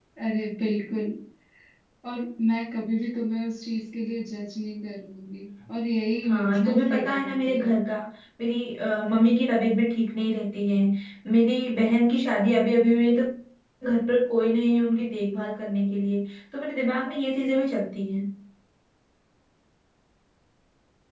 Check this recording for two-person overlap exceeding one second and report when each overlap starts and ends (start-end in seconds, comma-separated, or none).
6.3-7.7